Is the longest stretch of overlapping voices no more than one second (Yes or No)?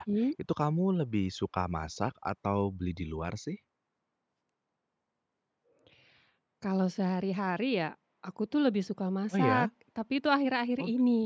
Yes